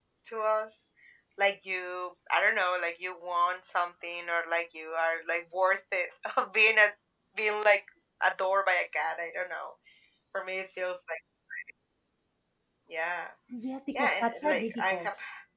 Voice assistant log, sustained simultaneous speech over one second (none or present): present